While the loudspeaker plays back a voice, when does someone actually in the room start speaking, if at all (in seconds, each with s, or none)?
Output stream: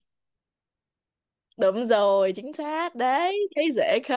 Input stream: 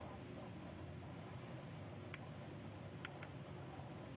none